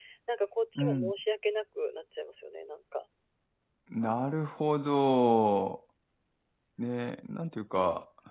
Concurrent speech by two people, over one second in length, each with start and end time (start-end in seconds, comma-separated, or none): none